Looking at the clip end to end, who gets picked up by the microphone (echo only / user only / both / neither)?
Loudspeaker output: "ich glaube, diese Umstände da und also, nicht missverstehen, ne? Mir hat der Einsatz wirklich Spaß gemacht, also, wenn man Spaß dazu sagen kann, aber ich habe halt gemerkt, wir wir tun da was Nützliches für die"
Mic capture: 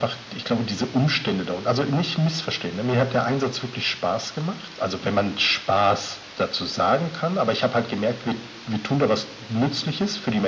echo only